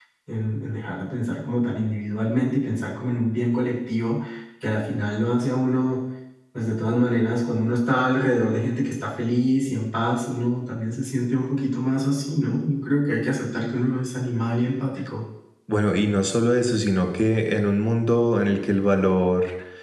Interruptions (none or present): none